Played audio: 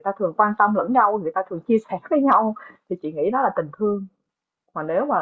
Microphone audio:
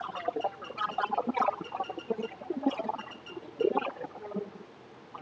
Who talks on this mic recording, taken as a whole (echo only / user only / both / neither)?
echo only